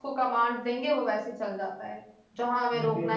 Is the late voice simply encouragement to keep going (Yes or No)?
Yes